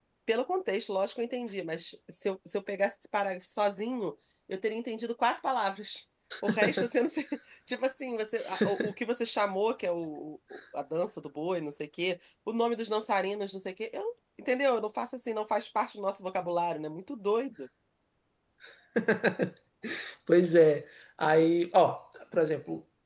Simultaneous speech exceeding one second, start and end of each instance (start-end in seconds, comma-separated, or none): none